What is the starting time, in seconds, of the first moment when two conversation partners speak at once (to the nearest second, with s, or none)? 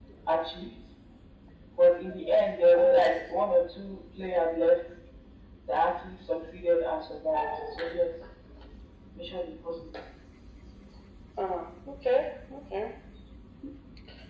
none